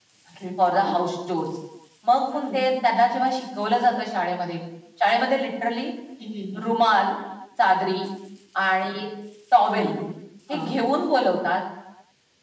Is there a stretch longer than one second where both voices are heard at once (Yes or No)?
No